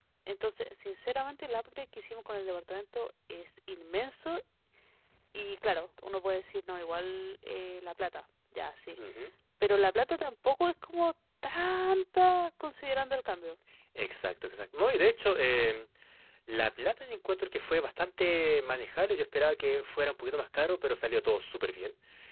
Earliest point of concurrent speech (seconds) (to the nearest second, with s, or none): none